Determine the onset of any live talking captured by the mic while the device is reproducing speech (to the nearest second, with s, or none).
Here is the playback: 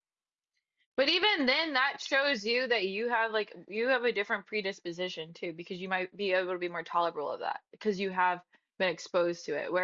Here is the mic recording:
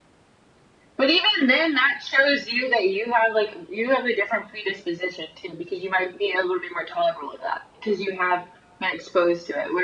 none